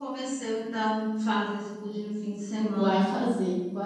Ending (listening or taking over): taking over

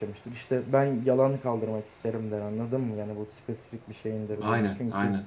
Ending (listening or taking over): listening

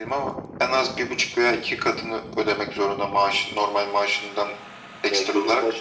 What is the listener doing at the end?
taking over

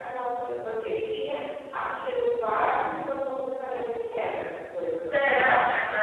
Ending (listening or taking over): taking over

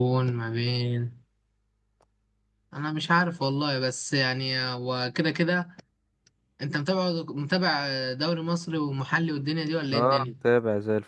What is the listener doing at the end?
taking over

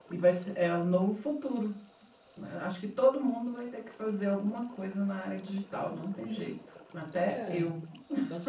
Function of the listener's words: taking over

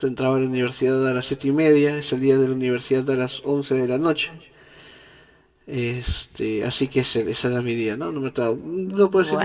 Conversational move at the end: listening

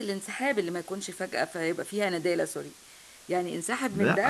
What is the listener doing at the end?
taking over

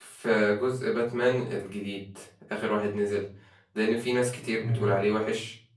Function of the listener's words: listening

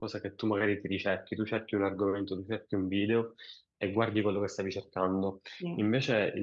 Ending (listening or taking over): listening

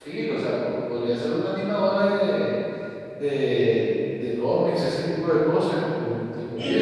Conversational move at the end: taking over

